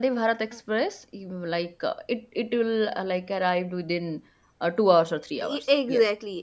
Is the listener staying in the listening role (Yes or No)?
No